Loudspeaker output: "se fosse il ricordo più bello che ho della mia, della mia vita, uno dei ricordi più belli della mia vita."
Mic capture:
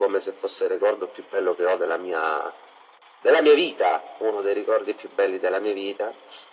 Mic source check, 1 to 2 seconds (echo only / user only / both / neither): echo only